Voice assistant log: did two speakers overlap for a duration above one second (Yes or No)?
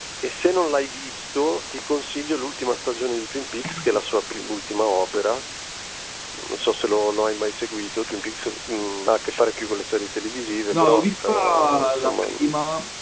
Yes